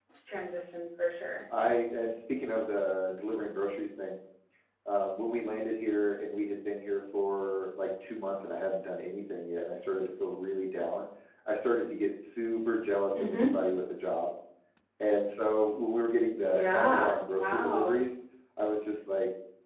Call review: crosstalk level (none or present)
present